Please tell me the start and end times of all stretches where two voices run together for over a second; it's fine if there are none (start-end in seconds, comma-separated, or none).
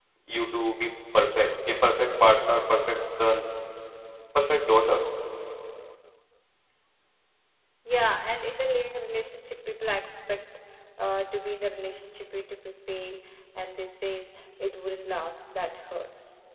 none